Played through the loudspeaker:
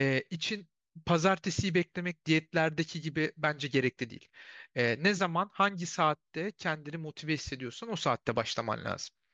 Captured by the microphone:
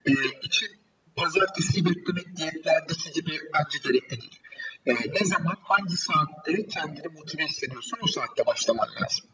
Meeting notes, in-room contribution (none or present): none